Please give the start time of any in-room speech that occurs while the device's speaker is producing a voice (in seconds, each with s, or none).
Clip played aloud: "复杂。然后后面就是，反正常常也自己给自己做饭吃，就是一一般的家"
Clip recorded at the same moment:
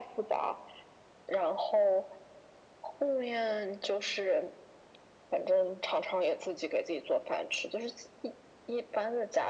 none